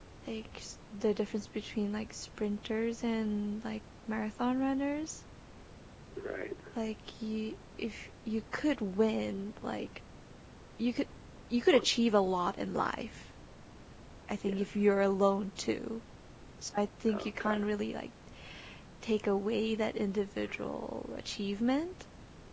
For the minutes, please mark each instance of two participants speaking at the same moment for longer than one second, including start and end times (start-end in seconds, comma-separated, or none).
none